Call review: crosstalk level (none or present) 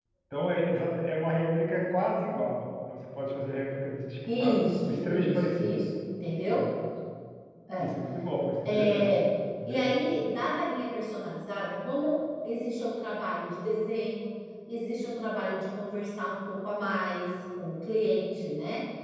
present